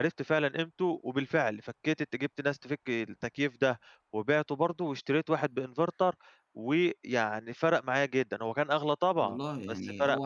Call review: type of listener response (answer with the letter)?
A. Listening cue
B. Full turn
B